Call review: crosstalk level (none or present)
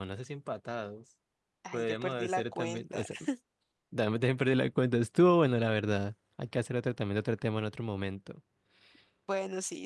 present